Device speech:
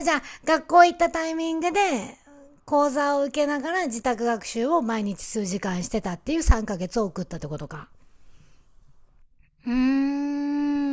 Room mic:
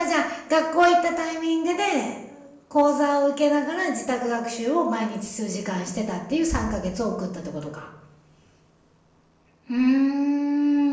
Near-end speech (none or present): none